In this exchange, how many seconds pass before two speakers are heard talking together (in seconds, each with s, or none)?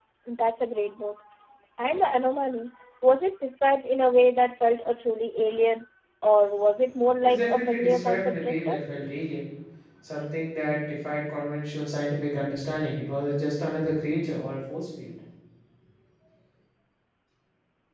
7.2 s